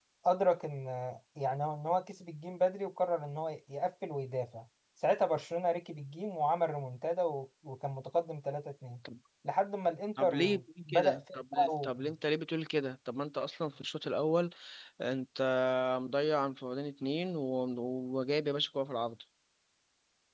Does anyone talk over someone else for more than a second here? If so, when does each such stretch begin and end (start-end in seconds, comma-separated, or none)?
10.2-11.9